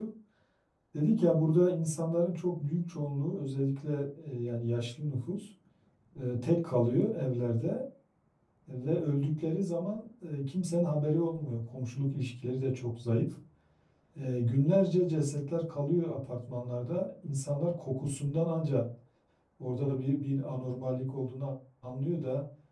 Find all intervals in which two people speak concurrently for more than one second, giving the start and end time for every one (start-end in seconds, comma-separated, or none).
none